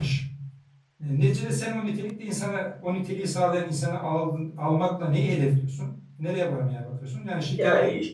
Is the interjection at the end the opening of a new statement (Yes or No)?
Yes